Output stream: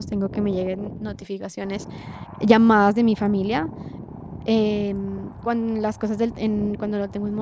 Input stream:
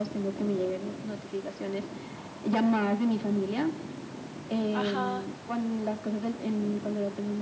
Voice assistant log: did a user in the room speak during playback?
Yes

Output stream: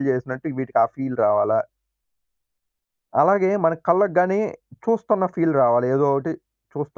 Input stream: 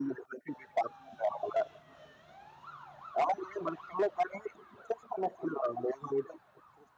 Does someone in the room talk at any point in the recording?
No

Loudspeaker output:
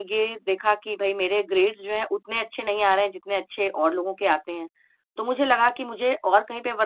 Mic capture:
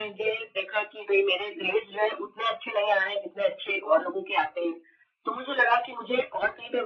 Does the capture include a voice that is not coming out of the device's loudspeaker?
No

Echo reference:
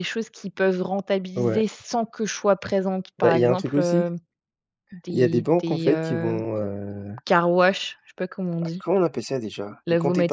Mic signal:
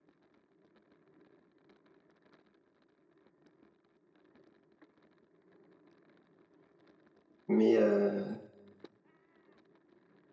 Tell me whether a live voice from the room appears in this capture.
Yes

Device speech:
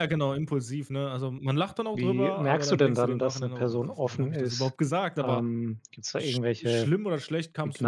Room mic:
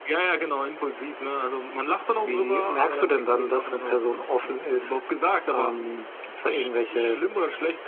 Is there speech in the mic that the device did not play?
No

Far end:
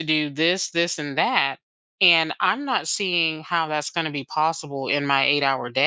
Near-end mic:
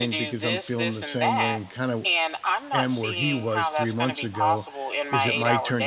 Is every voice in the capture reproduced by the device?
No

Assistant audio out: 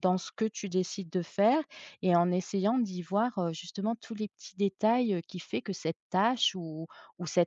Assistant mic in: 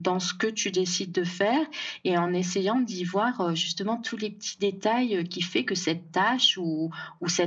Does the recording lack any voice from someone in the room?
Yes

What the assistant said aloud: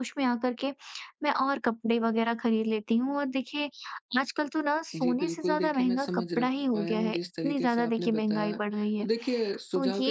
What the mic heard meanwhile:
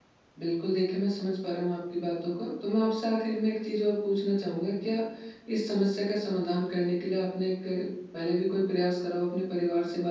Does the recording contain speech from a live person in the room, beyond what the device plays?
Yes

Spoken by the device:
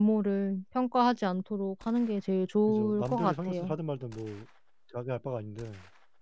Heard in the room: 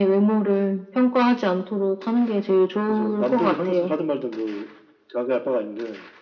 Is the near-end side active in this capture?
No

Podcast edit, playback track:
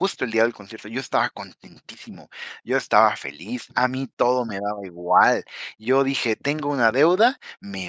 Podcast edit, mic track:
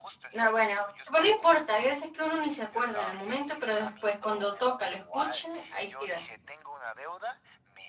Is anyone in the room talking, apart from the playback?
Yes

